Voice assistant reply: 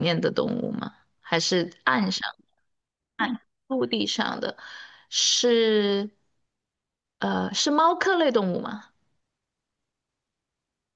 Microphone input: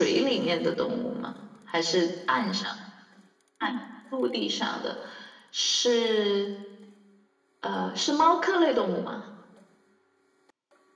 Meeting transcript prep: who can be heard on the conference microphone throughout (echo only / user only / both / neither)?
echo only